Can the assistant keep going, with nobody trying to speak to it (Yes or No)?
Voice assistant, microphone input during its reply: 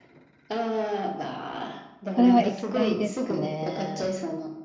No